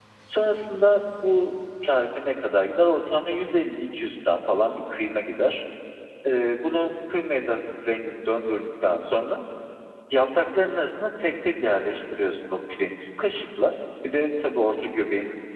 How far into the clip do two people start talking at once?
none

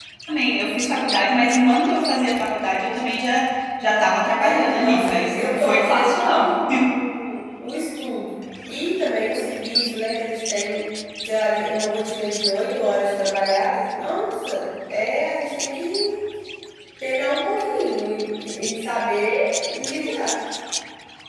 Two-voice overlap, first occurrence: 4 s

